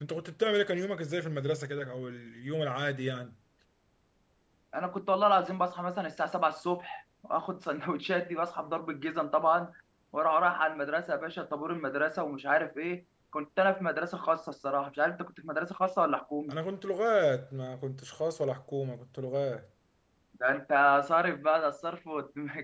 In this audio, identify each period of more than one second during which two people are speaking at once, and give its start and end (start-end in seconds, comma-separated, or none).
none